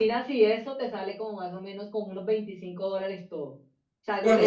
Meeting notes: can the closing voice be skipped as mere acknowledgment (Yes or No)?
Yes